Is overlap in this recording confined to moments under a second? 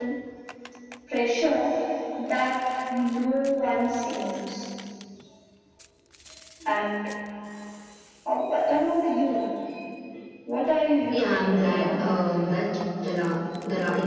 No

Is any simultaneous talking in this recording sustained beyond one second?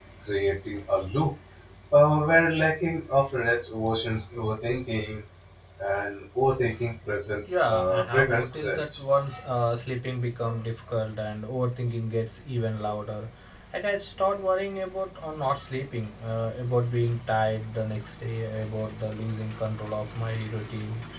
Yes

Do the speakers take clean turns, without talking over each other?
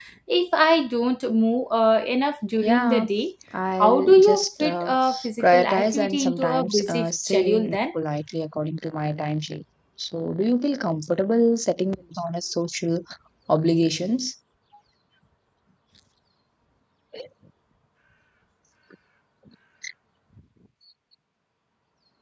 No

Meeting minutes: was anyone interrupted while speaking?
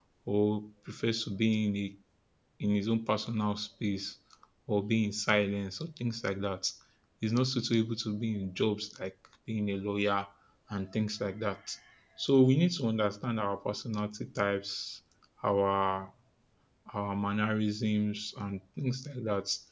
No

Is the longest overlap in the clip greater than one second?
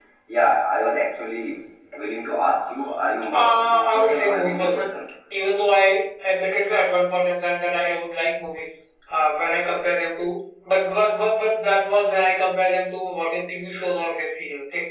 Yes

